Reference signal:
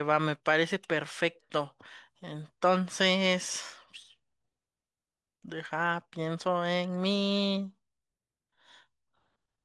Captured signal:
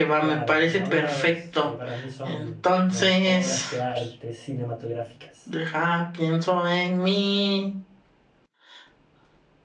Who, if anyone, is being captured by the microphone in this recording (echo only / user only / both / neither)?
both